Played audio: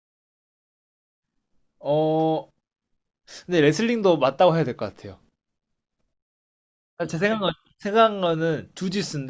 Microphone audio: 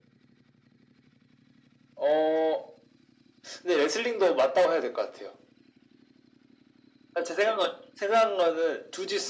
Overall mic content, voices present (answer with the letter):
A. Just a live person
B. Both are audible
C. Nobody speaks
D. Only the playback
D